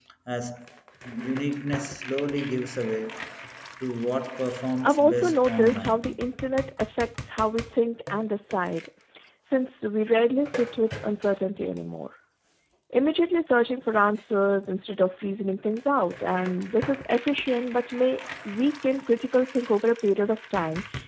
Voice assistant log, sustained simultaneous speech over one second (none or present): present